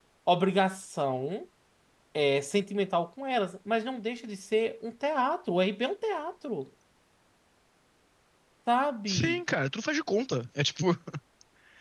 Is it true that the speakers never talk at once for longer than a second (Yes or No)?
Yes